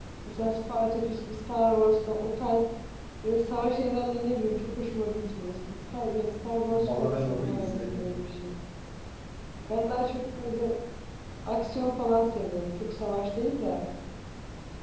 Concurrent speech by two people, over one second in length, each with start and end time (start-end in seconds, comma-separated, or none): 6.8-8.2